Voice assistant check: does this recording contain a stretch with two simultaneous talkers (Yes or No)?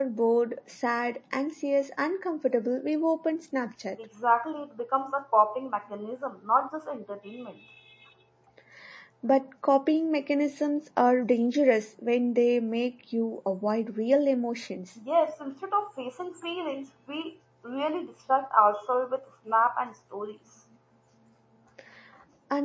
No